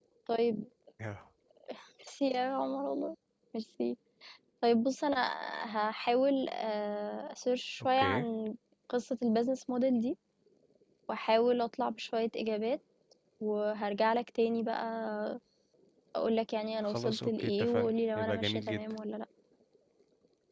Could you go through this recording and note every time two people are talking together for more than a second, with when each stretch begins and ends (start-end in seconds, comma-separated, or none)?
16.8-18.8